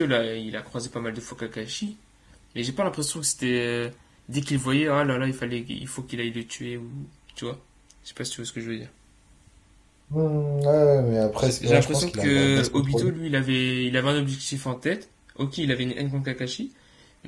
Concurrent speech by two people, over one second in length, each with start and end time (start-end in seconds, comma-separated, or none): 11.4-13.1